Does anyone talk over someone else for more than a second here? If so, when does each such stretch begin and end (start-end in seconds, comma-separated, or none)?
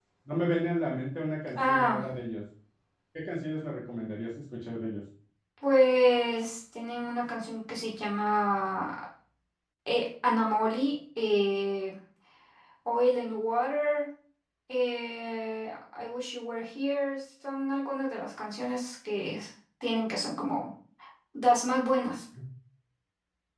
none